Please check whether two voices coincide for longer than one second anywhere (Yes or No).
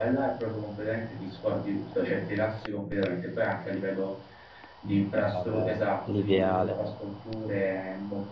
Yes